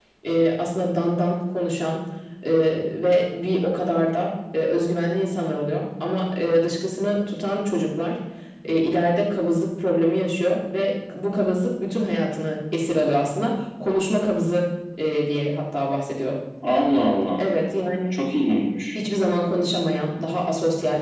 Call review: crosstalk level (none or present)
none